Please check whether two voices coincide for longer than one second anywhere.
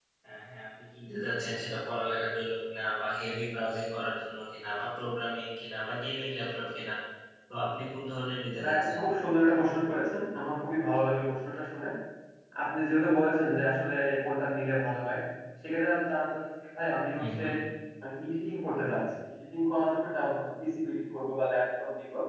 No

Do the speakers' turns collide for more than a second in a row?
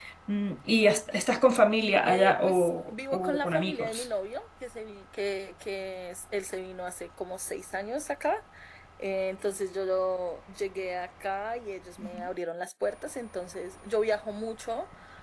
Yes, from 2.1 s

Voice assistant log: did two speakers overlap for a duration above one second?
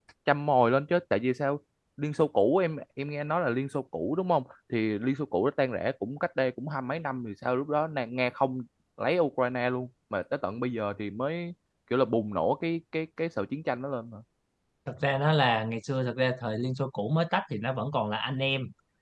No

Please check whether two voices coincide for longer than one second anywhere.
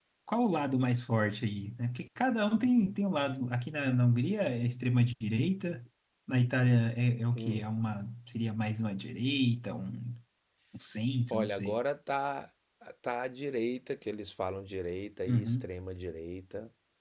No

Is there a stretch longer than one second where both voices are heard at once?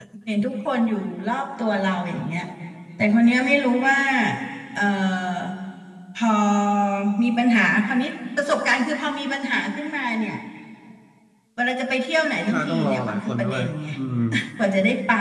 Yes, from 12.5 s

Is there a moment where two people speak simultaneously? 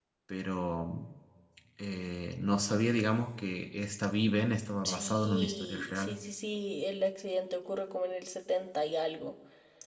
Yes, from 4.8 s

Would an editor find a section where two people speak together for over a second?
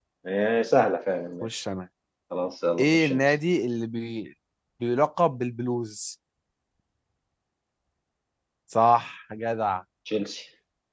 No

